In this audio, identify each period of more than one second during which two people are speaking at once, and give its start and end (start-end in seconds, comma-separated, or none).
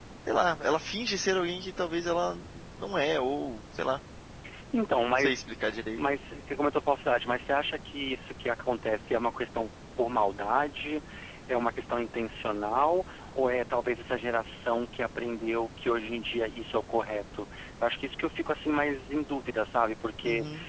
none